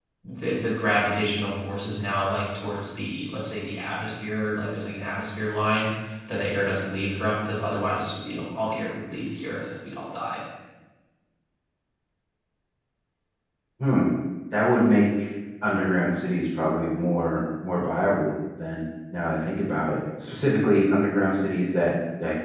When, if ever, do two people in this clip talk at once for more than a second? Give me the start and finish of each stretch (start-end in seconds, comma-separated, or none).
none